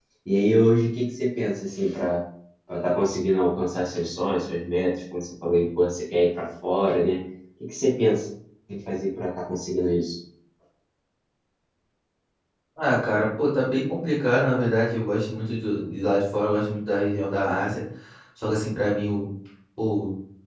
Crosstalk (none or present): none